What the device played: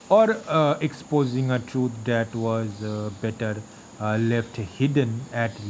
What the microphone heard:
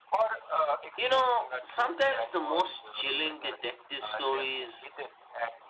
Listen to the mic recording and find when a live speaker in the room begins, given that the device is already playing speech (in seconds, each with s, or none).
0.9 s